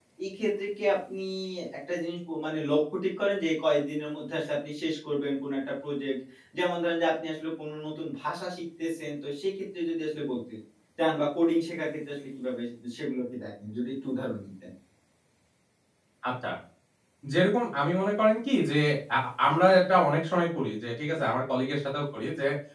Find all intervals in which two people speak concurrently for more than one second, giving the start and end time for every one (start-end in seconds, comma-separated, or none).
none